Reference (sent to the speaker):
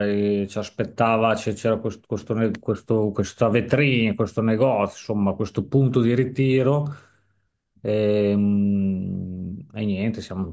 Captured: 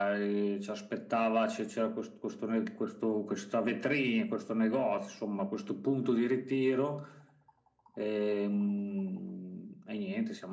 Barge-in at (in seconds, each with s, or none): none